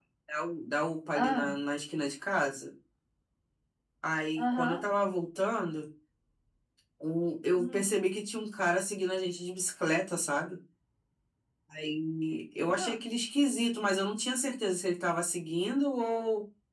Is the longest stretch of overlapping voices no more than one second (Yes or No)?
Yes